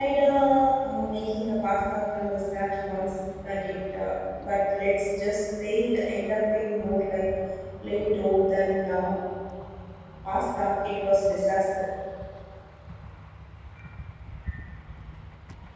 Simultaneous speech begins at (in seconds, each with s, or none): none